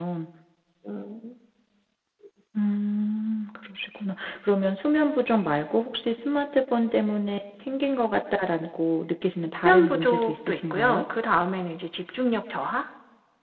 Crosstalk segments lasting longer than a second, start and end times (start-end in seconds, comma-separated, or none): 9.6-11.0